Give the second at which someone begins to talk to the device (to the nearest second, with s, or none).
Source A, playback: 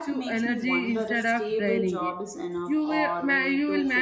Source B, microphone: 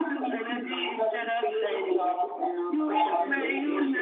3 s